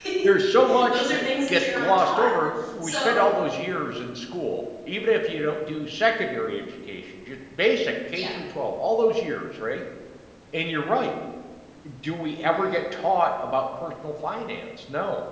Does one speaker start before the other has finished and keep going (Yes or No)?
Yes